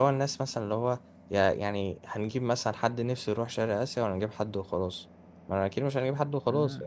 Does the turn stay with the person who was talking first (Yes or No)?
No